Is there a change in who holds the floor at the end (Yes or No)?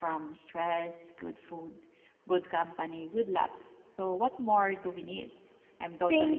Yes